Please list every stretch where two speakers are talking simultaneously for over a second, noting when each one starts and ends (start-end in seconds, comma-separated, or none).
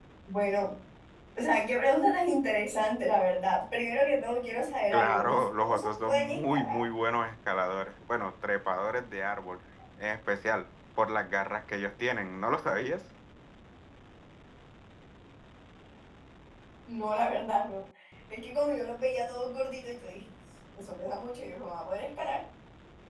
4.9-6.8